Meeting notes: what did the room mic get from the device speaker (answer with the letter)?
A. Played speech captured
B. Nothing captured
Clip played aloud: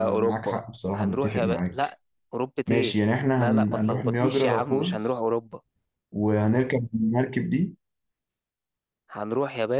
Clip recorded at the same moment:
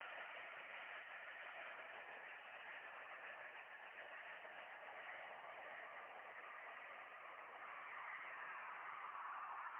B